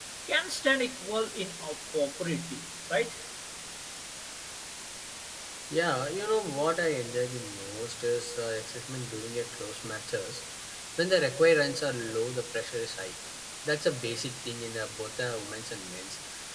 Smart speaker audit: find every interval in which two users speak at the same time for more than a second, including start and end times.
none

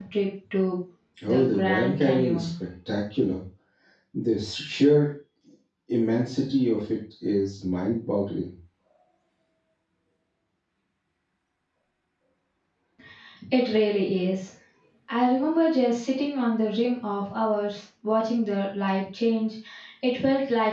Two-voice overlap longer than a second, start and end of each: 1.3-2.5

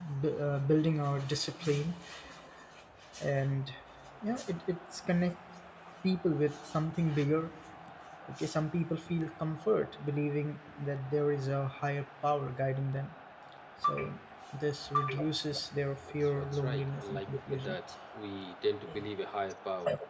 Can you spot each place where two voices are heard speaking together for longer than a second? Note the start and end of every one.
16.2-17.8

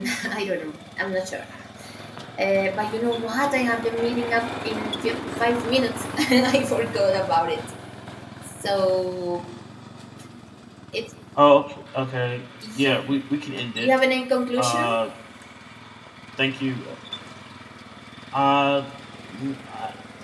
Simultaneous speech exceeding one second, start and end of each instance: none

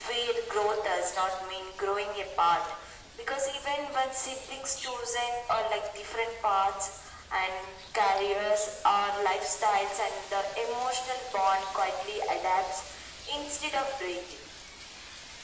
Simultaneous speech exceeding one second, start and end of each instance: none

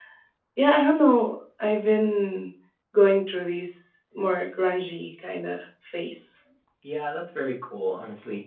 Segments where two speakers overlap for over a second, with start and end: none

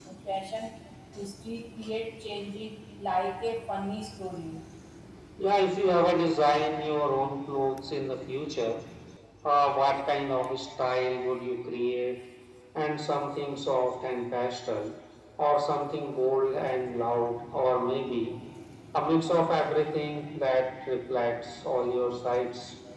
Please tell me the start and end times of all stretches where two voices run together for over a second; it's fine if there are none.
none

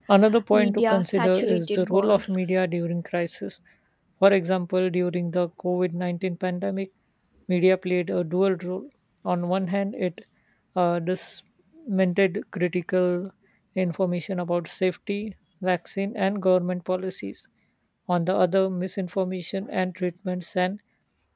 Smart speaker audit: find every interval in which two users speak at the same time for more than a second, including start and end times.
0.5-2.3

